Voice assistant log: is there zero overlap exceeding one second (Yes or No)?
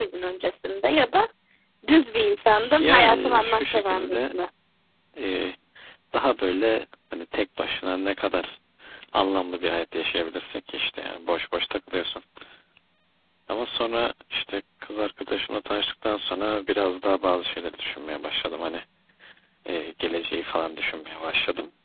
No